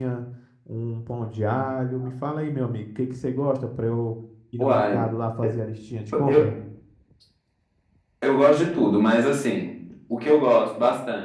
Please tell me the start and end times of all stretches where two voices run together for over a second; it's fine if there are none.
none

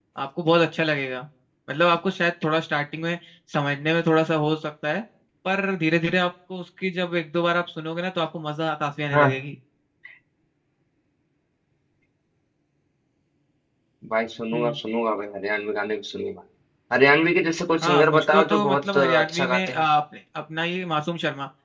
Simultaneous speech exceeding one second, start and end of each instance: 17.8-19.8

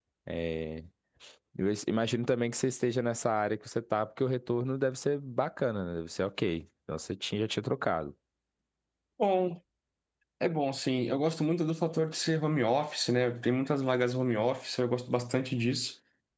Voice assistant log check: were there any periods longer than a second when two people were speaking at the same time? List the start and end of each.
none

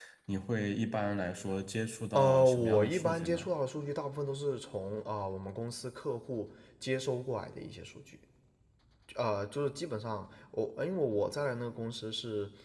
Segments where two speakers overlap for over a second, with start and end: 2.1-3.5

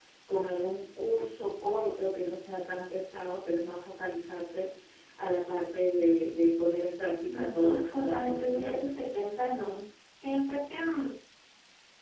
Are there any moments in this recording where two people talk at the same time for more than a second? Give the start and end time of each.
7.2-9.0

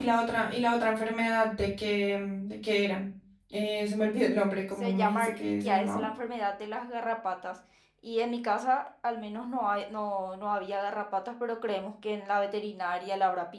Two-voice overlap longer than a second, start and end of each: 4.8-6.1

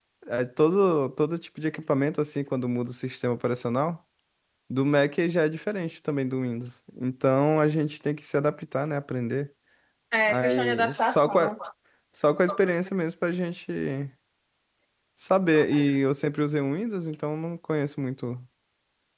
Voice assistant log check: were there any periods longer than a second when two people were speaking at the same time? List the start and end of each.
10.3-11.6

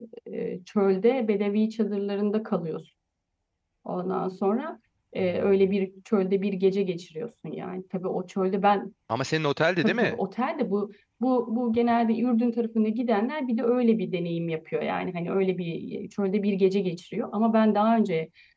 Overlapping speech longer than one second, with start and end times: none

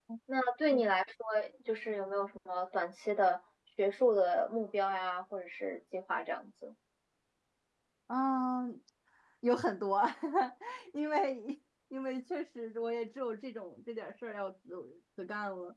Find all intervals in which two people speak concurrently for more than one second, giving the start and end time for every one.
none

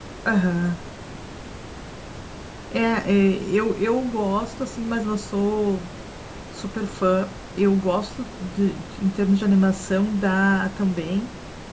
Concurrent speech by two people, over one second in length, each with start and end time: none

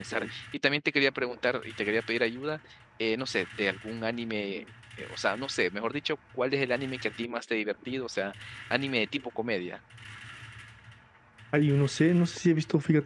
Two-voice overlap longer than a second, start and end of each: none

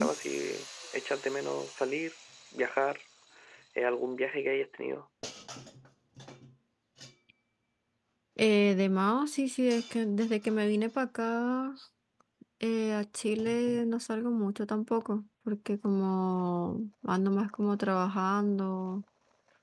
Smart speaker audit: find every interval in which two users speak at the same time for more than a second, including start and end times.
none

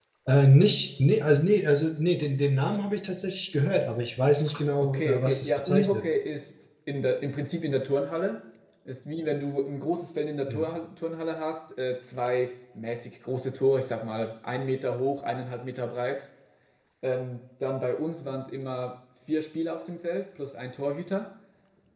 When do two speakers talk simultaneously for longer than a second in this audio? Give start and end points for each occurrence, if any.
4.8-6.0

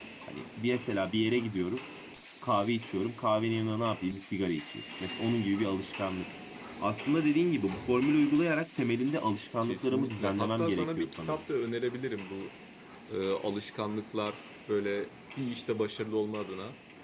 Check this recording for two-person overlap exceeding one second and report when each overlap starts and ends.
9.6-11.4

